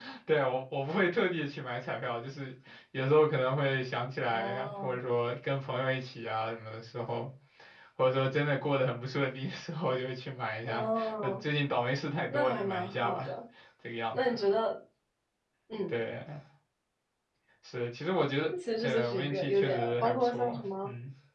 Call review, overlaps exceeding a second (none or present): present